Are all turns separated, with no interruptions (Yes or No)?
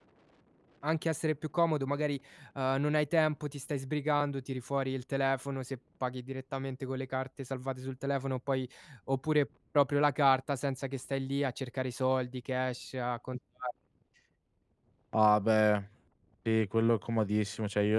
Yes